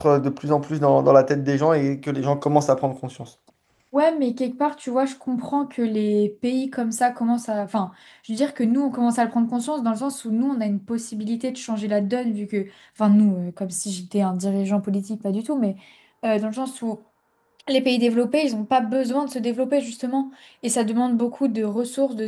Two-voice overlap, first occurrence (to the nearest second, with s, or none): none